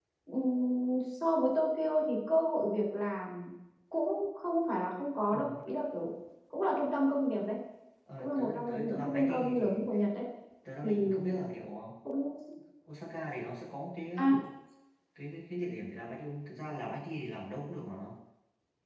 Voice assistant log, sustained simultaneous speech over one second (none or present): present